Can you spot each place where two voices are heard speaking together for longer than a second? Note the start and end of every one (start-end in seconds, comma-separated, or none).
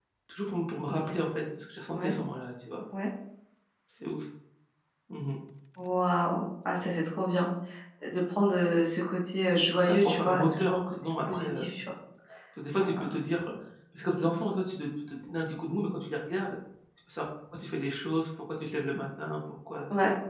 9.6-11.7